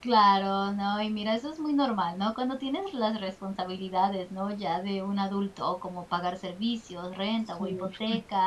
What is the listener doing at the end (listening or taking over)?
listening